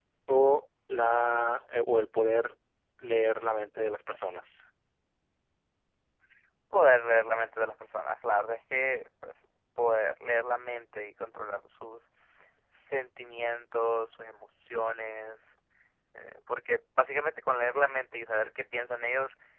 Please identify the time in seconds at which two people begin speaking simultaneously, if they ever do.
none

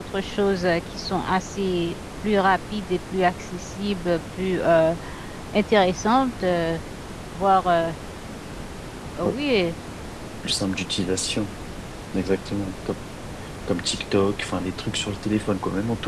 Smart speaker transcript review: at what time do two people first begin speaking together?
none

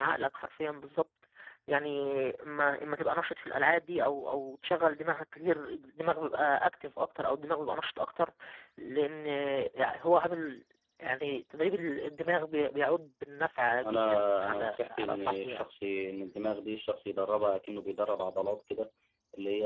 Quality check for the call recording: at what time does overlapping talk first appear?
13.8 s

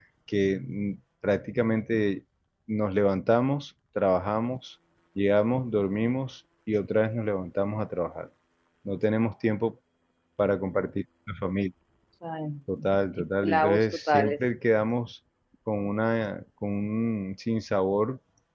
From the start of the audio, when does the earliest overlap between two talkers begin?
13.2 s

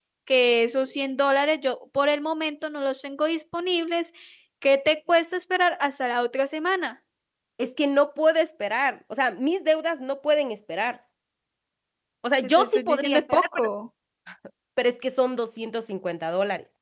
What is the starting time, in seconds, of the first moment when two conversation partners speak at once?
12.4 s

